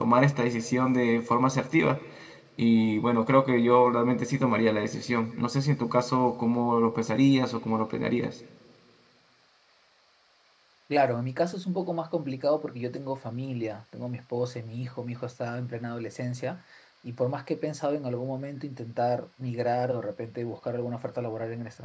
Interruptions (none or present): none